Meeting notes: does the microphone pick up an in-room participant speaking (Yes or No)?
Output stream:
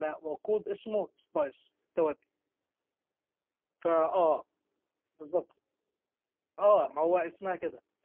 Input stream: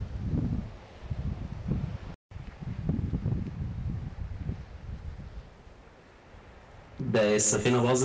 Yes